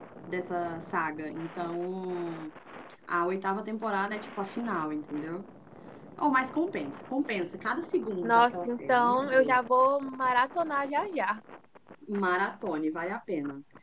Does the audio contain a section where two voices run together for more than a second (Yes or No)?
Yes